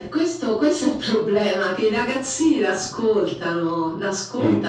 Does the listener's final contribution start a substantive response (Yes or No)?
No